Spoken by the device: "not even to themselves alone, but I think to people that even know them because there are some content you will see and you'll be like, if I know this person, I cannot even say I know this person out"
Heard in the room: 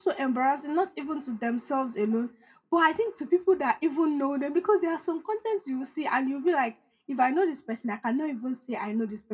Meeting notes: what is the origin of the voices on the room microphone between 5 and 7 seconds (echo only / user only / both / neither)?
echo only